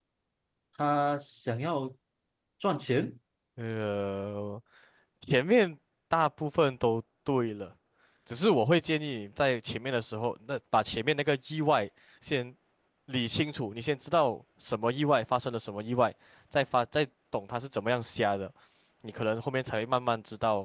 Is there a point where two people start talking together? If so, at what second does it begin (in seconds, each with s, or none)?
none